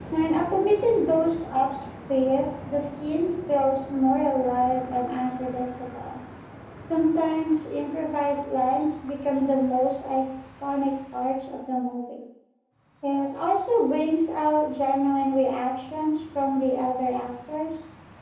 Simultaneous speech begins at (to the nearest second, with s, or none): none